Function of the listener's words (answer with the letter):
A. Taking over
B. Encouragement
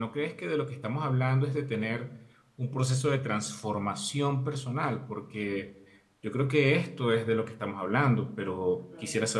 A